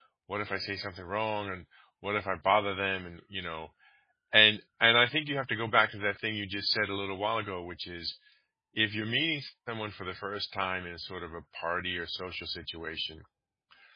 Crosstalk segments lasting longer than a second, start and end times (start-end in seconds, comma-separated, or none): none